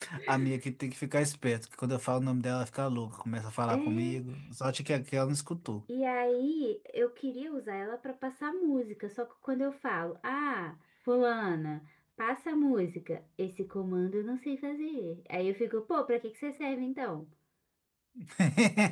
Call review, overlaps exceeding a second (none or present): none